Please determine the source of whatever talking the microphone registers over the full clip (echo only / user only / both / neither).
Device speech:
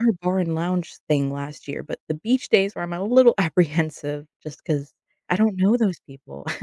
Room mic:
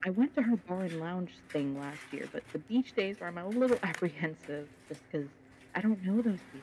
echo only